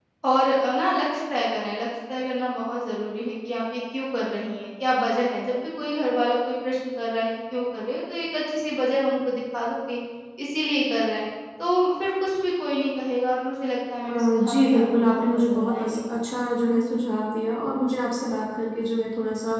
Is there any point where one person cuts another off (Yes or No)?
Yes